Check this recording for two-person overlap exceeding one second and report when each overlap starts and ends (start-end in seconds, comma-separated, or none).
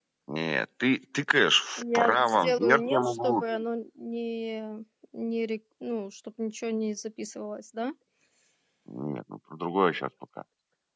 1.8-3.4